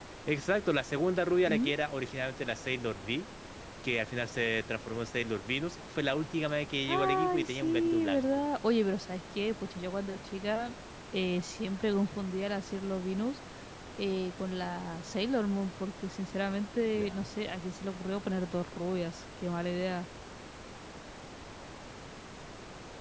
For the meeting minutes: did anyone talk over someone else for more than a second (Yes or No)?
Yes